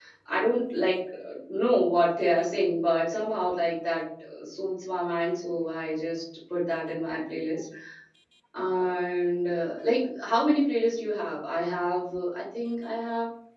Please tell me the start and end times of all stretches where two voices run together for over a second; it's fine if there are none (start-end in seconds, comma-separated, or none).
none